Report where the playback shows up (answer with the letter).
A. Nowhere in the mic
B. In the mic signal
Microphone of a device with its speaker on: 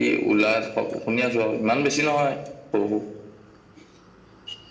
B